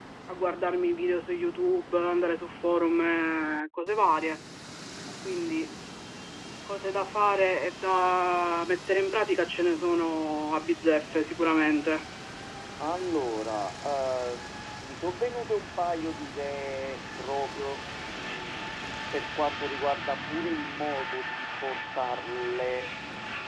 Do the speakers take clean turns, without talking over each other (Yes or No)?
Yes